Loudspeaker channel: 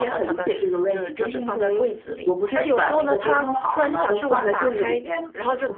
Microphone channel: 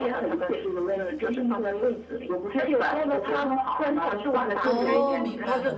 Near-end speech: present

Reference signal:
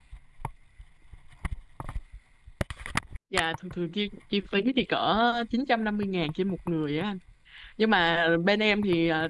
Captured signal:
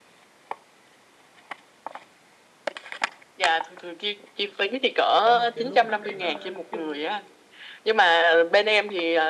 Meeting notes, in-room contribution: present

